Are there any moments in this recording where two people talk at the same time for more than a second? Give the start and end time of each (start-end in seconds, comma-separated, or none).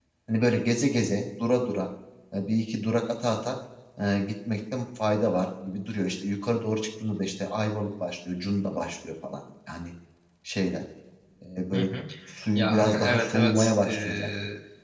12.6-14.3